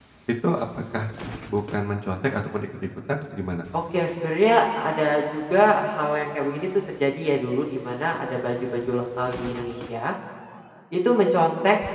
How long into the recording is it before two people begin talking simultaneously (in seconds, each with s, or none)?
none